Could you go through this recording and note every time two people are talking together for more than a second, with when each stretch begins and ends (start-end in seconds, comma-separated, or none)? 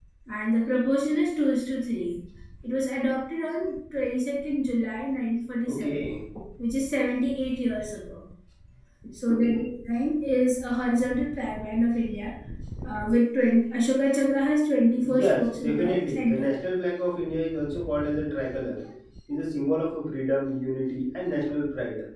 15.0-16.5